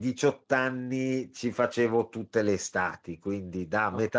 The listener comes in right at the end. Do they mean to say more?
No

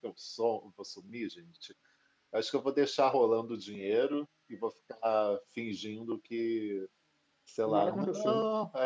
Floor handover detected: No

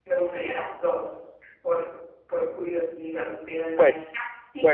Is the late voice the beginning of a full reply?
Yes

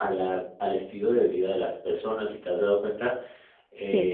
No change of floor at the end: Yes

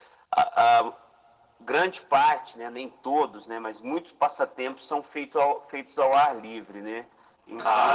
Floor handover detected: No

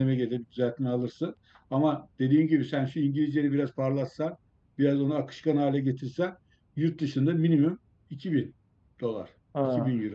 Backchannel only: No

